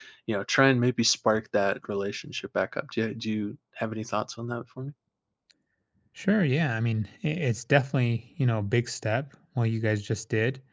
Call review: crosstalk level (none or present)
none